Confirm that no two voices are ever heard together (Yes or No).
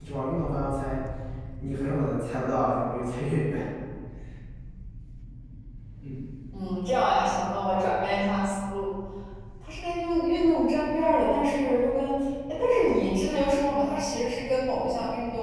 Yes